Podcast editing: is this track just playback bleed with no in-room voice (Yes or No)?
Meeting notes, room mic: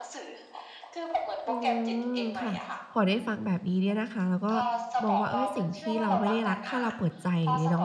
No